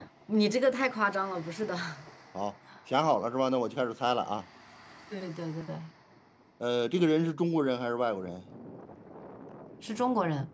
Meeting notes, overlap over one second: none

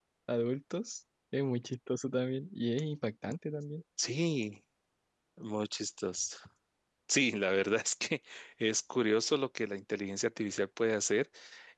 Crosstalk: none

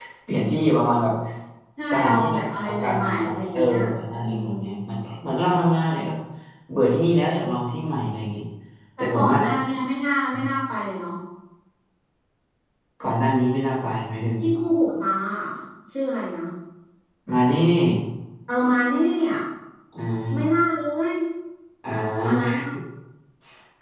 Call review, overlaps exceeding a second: present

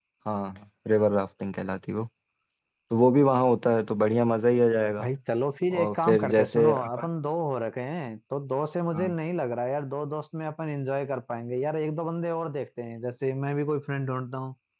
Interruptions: present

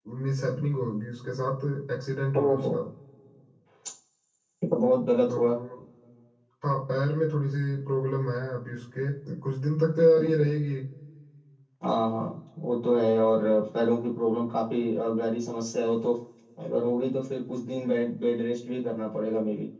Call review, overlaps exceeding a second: none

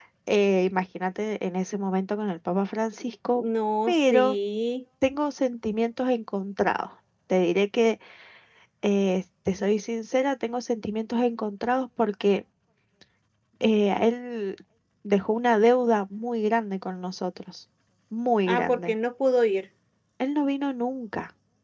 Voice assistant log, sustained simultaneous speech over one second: none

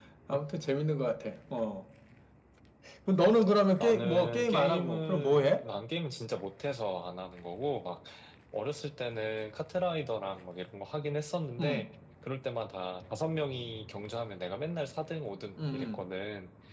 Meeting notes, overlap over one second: present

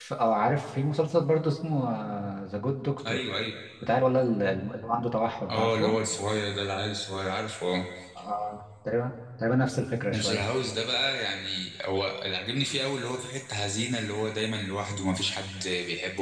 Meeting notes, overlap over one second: none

